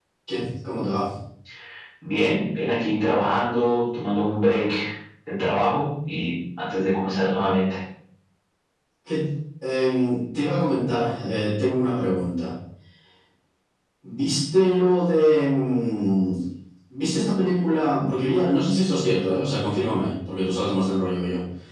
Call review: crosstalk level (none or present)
none